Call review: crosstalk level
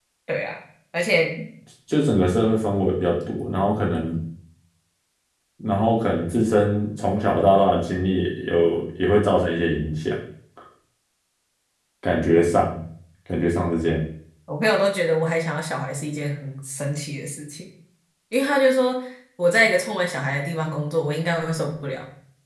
none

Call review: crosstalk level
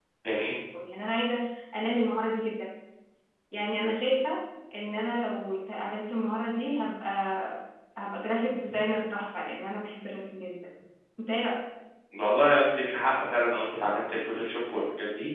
none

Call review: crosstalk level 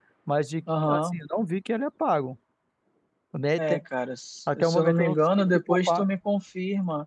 present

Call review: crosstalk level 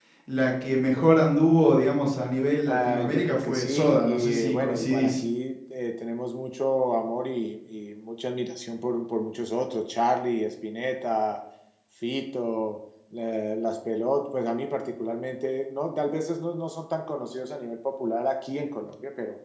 present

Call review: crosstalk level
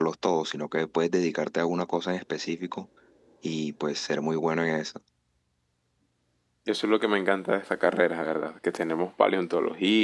none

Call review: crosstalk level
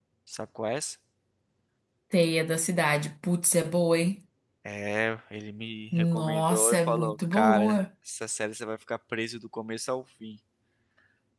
present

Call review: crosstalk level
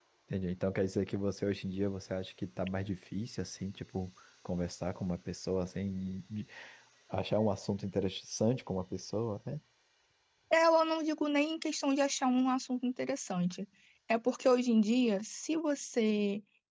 none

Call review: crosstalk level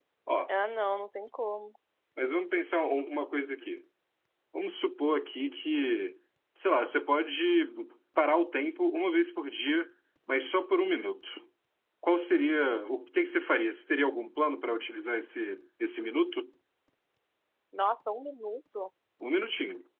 none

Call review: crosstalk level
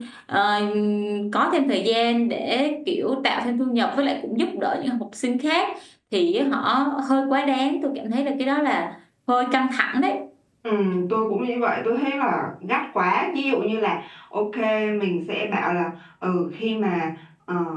none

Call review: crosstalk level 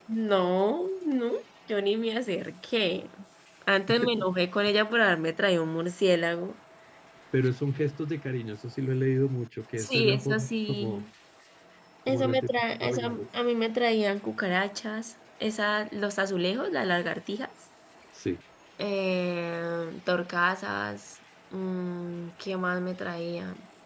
present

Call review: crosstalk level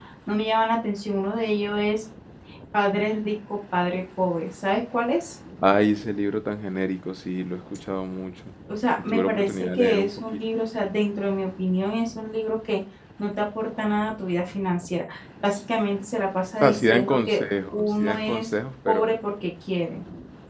present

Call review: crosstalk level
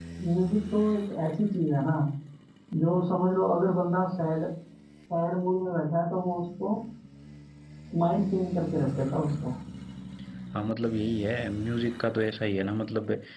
none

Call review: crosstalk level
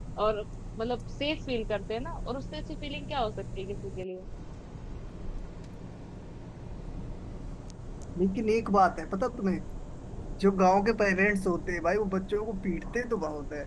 none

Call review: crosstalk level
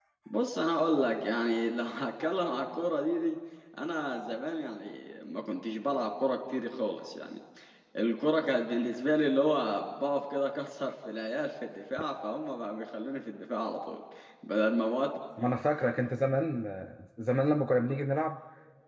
none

